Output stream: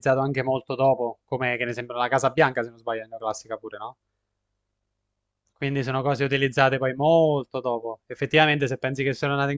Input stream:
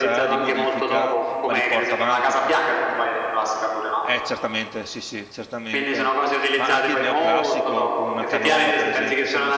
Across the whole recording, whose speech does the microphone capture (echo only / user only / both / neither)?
both